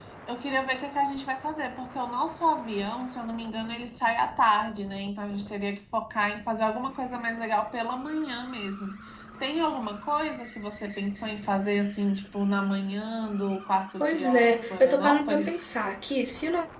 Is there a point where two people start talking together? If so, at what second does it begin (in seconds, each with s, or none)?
14.0 s